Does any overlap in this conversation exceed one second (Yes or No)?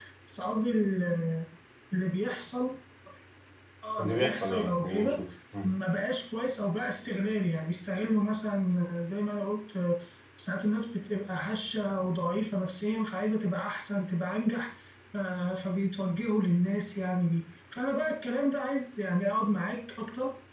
Yes